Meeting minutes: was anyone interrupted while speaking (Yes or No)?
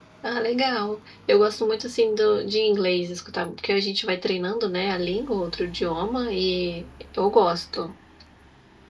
No